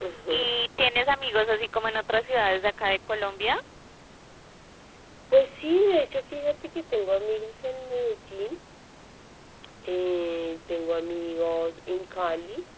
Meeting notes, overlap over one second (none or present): none